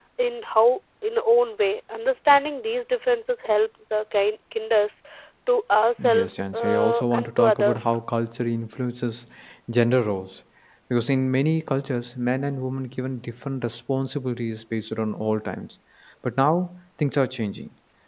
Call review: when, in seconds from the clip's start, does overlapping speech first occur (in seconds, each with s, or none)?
6.0 s